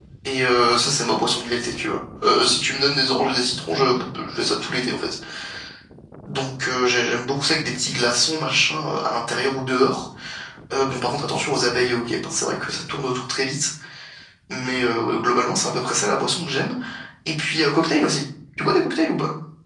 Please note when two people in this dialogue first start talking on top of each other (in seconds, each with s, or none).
none